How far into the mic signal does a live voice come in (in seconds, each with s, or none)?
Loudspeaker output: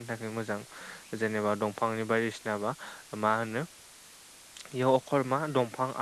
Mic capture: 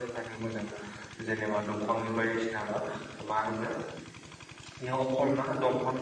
none